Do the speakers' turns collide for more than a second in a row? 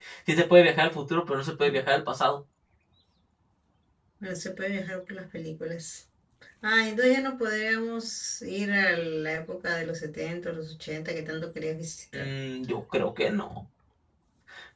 No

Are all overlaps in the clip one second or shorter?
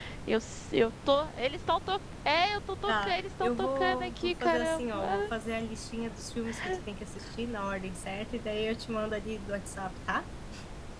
No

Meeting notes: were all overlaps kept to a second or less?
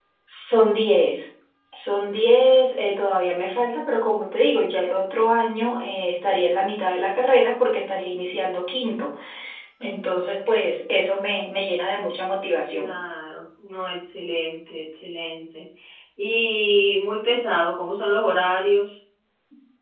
Yes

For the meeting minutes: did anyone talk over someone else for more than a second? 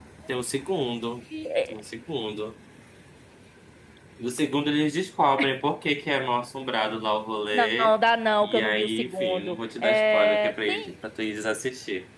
Yes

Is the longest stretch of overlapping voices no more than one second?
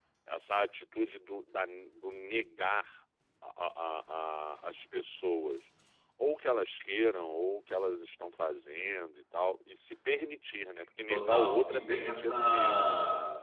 No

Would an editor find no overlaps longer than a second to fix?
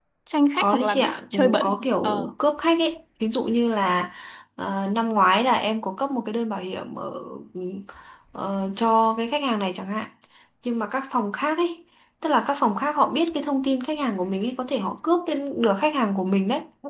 No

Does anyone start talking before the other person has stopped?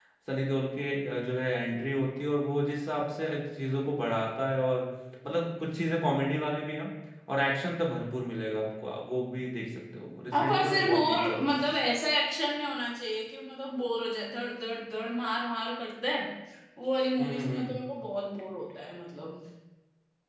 Yes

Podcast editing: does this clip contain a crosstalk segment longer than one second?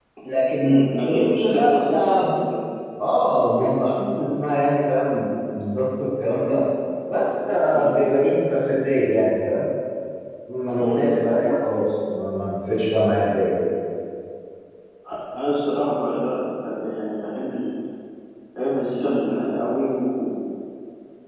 Yes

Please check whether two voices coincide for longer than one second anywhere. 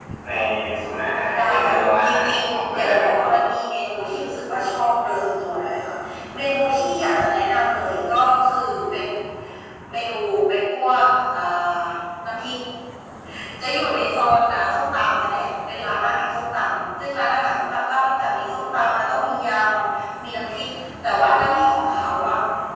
Yes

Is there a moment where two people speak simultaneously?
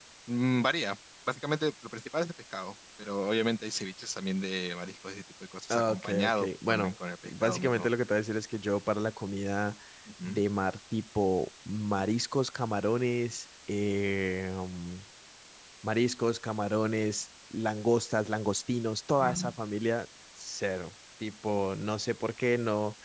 Yes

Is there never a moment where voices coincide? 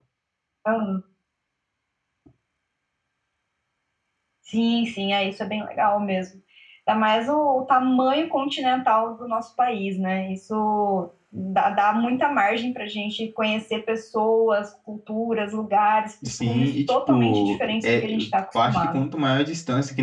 No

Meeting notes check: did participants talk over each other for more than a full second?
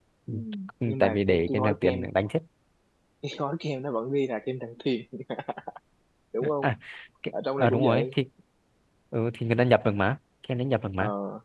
Yes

